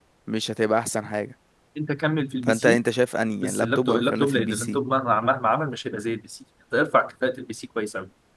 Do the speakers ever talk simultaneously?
Yes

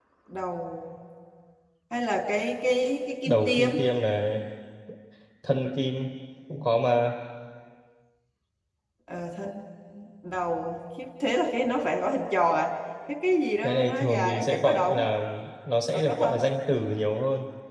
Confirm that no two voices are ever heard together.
No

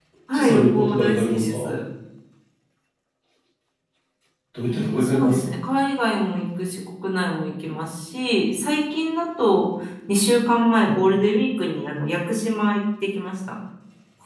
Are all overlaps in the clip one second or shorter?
No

